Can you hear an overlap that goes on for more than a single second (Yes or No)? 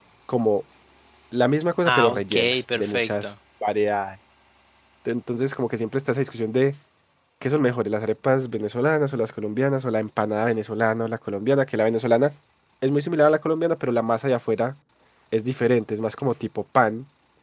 Yes